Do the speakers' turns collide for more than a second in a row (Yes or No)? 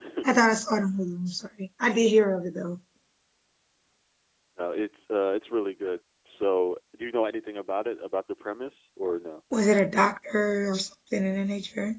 No